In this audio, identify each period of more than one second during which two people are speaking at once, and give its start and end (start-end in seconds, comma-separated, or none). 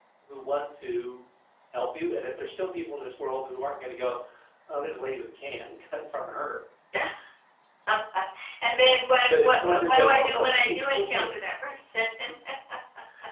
9.3-11.3